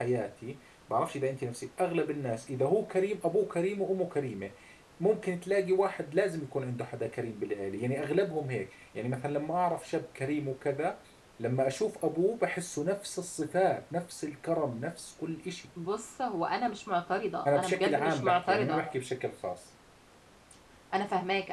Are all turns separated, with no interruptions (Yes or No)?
No